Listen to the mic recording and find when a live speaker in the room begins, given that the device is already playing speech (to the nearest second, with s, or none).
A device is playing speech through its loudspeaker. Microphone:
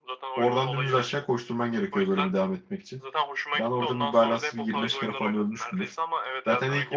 0 s